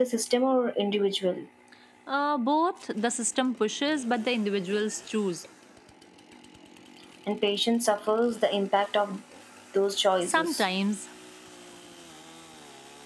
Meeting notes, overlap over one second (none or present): none